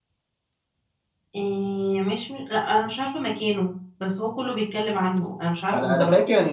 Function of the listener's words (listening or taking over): taking over